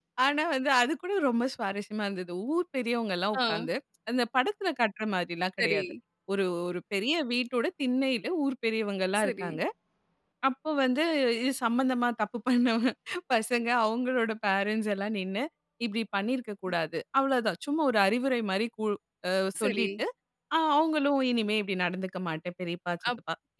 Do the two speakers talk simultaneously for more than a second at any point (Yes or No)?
No